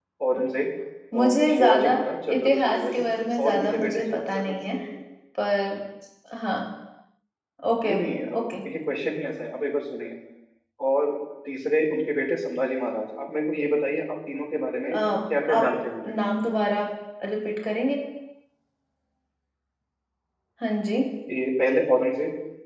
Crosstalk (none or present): present